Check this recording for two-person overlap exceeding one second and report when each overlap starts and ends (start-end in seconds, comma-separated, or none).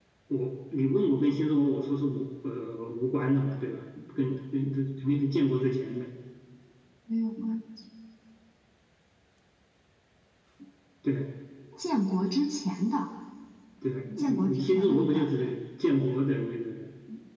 14.2-15.6